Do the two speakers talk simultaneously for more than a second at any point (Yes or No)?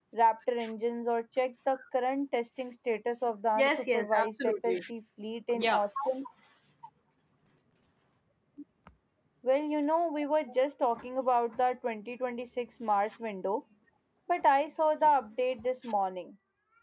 Yes